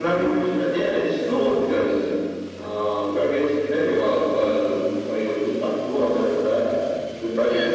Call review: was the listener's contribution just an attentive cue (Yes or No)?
Yes